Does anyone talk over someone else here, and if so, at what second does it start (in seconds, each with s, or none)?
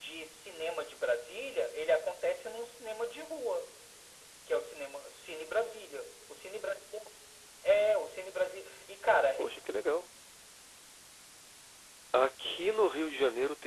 none